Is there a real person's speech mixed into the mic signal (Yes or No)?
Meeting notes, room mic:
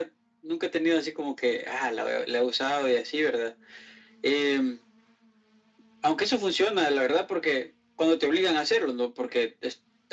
No